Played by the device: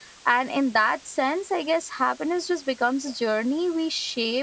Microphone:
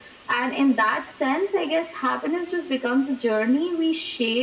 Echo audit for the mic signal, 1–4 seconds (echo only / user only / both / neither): echo only